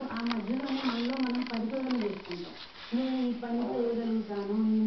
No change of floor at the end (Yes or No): Yes